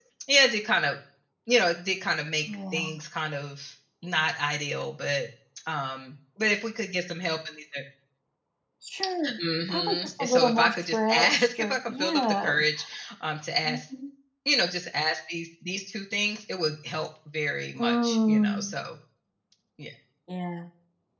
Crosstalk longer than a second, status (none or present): present